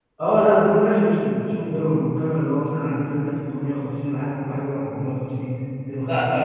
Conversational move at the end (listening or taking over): taking over